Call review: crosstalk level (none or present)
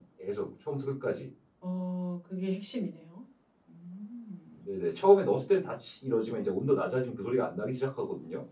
none